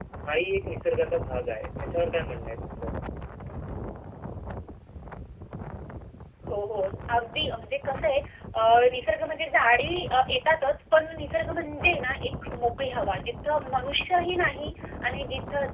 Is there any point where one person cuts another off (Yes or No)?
No